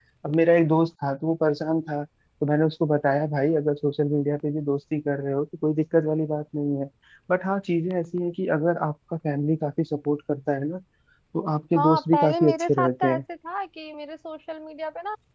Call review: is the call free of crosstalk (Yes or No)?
No